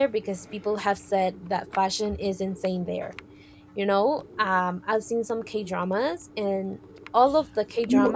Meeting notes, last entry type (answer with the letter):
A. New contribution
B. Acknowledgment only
B